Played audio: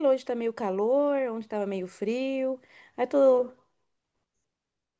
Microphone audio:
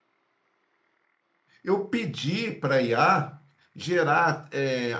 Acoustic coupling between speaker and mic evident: No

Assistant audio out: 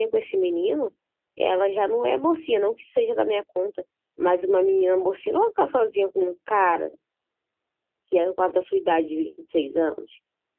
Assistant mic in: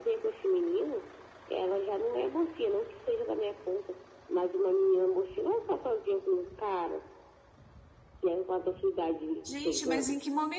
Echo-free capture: No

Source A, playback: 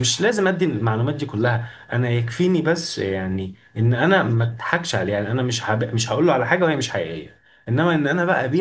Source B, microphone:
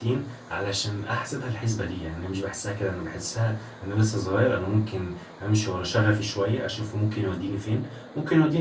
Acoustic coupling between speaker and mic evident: No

